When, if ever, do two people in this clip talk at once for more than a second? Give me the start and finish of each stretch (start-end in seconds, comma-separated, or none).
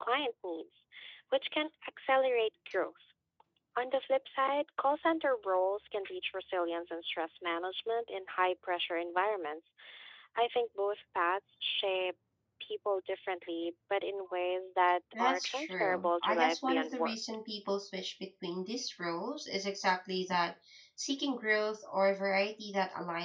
15.1-17.2